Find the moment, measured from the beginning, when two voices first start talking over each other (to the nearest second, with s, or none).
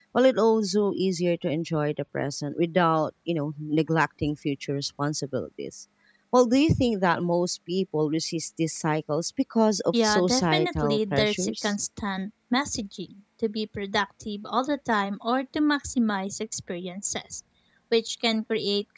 10 s